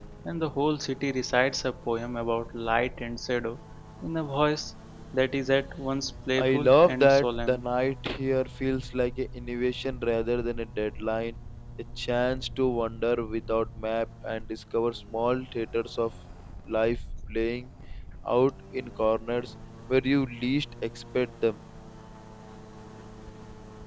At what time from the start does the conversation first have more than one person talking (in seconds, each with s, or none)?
6.4 s